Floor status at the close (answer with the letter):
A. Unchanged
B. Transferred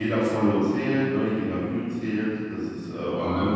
A